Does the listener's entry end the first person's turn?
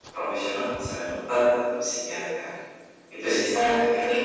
Yes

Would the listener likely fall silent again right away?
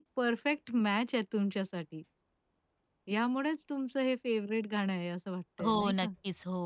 No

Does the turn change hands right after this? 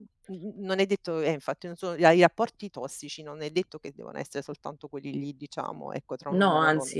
No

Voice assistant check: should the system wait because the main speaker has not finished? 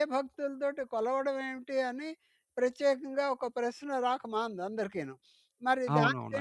No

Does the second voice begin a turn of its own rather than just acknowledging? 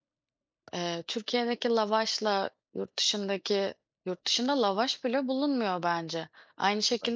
No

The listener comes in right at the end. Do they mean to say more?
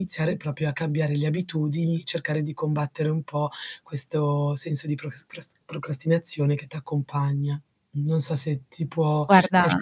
No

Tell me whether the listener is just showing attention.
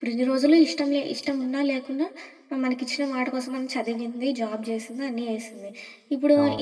Yes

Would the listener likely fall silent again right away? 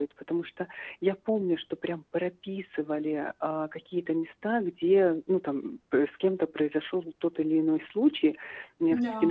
Yes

